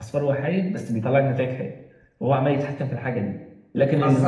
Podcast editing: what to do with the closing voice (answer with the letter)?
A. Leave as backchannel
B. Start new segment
B